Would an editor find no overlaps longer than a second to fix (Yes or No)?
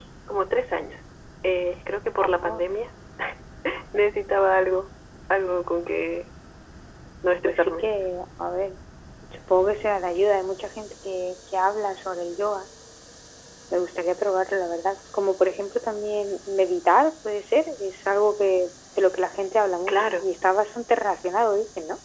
Yes